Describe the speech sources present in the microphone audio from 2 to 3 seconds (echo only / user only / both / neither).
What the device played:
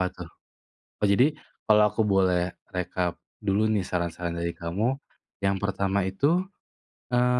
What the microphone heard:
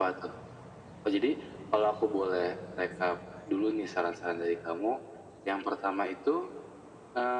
echo only